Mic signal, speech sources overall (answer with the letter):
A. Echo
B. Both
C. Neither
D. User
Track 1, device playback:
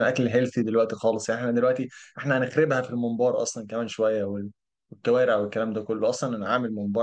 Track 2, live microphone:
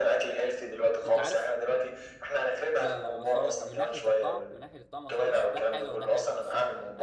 B